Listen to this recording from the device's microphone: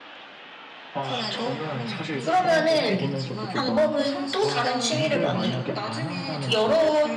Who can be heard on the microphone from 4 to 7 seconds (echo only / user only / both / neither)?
both